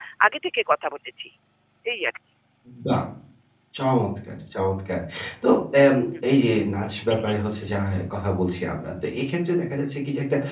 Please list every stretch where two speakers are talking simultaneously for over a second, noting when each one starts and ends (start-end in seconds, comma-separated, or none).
none